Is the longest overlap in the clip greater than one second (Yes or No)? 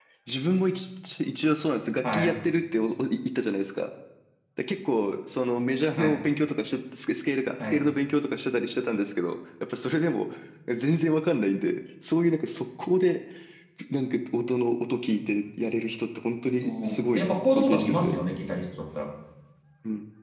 Yes